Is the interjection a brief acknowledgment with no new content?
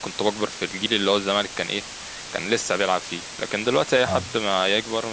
Yes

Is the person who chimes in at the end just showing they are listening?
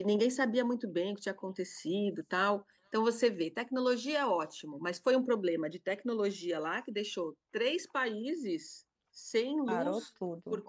Yes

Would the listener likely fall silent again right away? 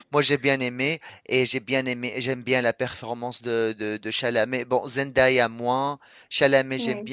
Yes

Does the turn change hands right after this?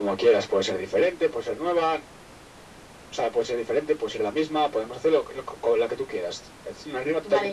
Yes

